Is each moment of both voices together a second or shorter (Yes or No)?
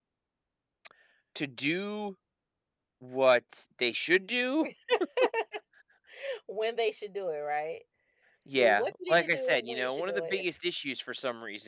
No